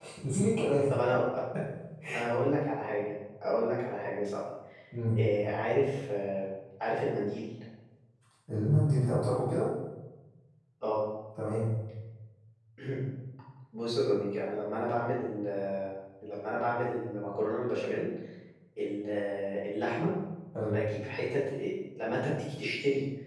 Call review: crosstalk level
none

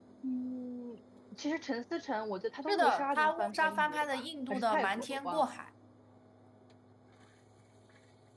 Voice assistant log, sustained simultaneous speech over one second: present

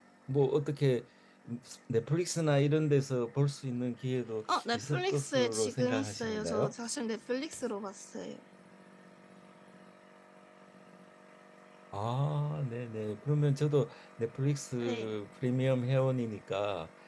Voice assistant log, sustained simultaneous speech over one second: present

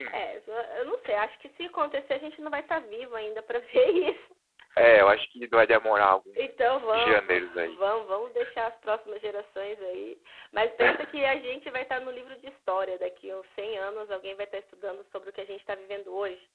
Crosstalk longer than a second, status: present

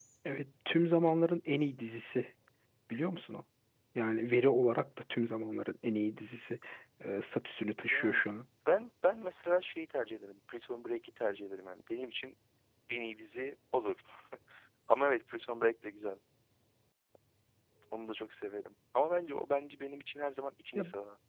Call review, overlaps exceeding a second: none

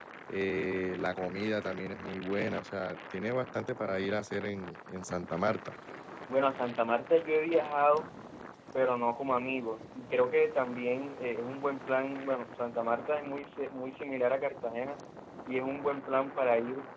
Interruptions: none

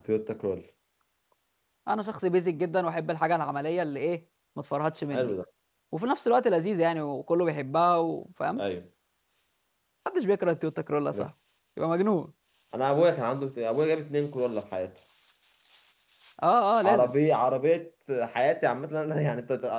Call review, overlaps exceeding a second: none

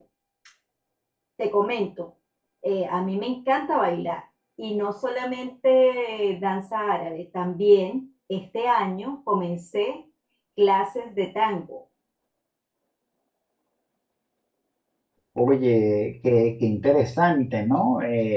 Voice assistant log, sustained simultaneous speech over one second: none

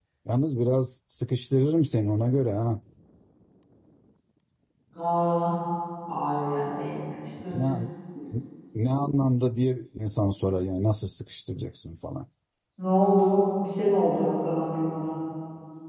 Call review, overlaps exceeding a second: none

